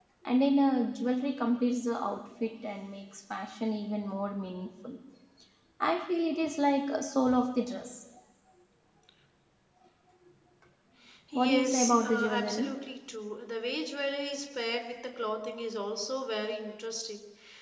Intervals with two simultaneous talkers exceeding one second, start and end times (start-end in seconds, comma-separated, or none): 11.3-12.7